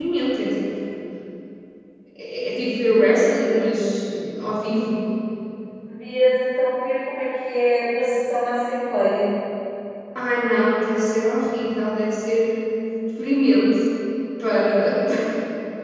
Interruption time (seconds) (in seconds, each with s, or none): none